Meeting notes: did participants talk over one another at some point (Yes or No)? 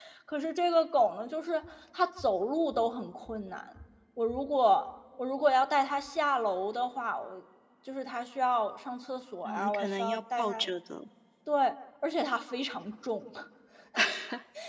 Yes